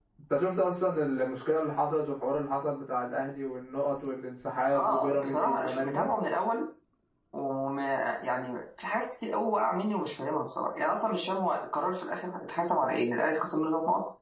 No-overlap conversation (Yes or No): No